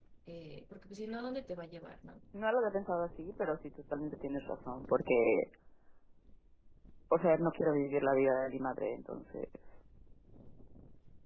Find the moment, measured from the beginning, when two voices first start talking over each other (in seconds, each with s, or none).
none